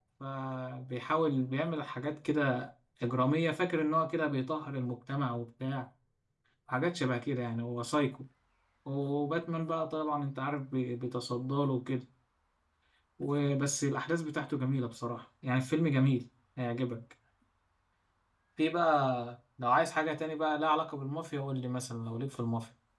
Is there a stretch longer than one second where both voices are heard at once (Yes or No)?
No